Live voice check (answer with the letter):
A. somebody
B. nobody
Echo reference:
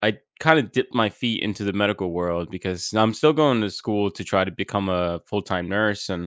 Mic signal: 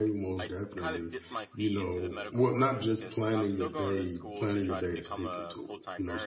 A